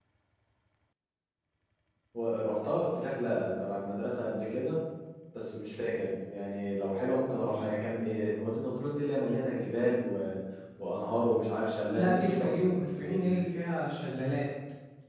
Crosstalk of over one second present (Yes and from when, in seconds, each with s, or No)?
Yes, from 11.9 s